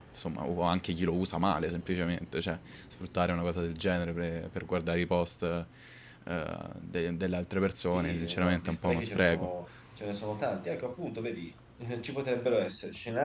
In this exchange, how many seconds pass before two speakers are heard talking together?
7.9 s

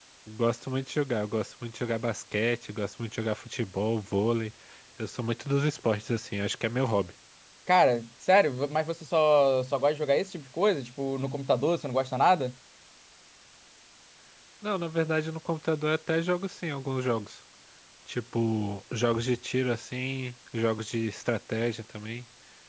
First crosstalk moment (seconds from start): none

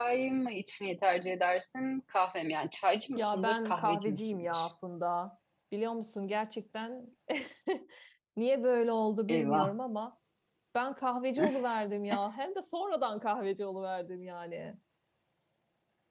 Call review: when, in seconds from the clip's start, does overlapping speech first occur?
3.2 s

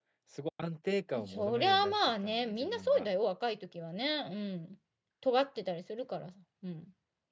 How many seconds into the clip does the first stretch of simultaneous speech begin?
1.3 s

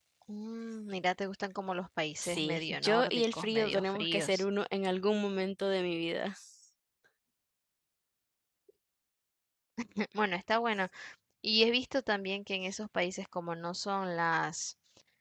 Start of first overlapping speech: 2.2 s

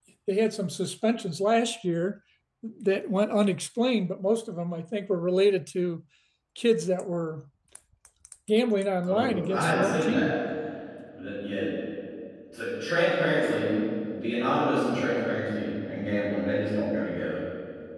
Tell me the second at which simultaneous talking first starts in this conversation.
9.0 s

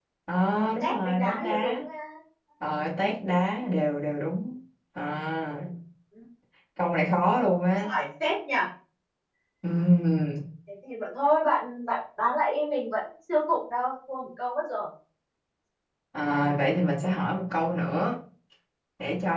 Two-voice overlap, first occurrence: 0.6 s

